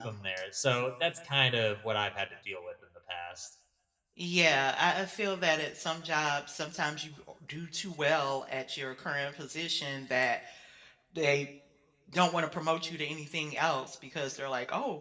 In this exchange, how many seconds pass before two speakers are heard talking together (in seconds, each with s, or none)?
none